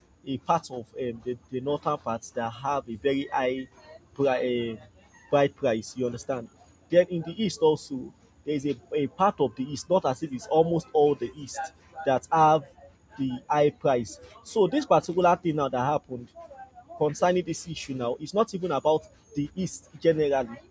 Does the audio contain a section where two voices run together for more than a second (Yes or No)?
No